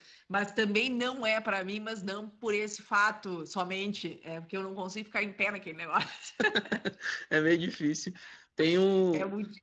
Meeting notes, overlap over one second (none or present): none